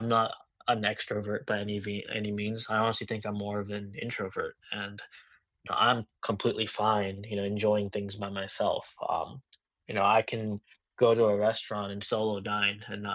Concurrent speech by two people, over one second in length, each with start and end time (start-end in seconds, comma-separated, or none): none